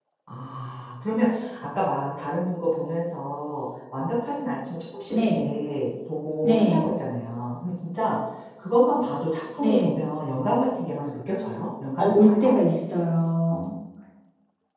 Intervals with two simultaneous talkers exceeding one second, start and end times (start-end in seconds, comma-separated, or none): none